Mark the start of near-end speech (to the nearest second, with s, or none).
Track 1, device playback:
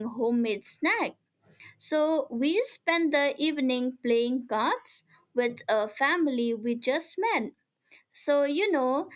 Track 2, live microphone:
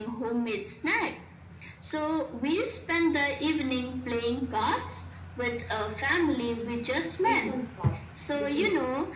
7 s